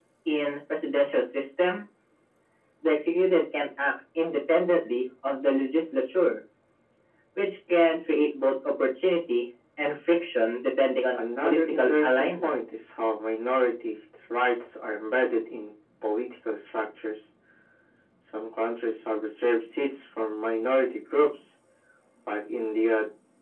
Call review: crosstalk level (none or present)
present